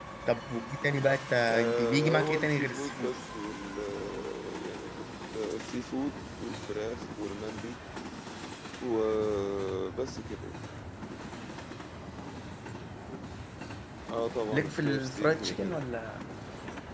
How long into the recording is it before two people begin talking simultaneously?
1.6 s

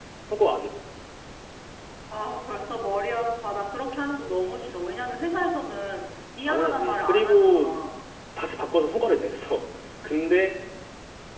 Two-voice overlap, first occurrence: 6.5 s

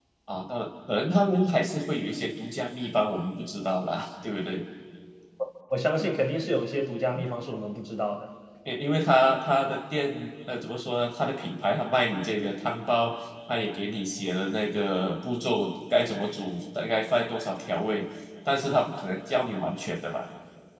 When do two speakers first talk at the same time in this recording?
none

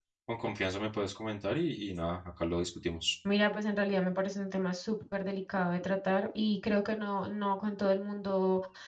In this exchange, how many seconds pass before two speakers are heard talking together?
none

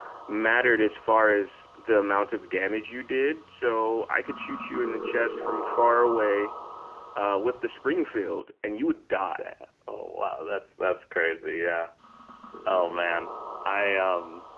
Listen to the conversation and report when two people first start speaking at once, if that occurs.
none

